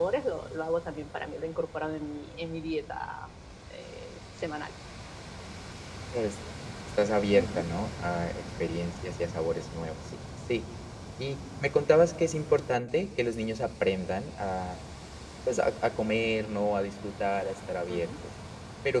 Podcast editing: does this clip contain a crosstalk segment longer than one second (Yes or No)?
No